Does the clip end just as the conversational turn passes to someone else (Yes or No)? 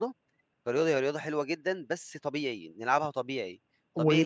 No